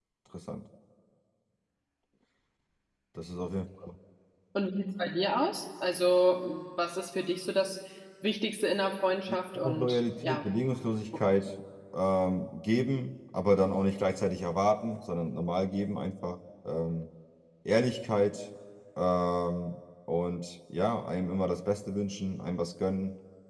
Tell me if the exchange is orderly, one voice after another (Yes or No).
No